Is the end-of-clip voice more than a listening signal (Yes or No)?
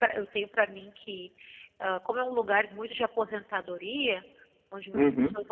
No